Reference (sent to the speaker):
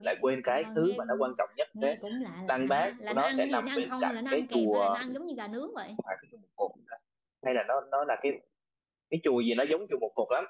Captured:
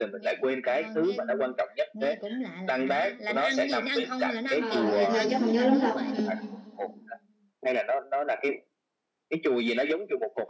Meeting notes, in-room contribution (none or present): present